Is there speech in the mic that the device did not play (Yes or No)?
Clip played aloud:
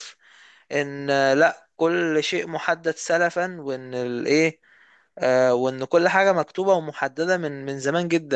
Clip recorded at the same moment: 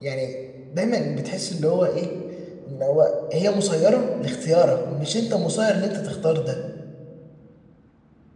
Yes